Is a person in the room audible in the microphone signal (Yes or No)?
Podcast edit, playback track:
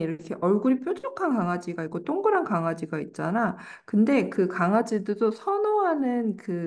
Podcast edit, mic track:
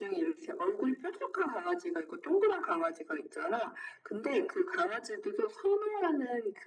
No